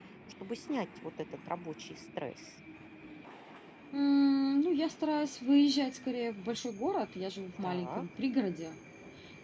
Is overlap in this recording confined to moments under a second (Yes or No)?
Yes